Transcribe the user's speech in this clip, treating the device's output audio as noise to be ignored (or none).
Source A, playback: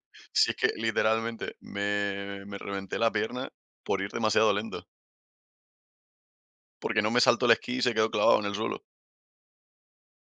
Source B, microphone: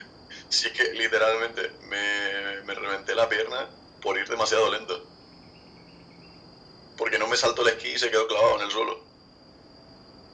none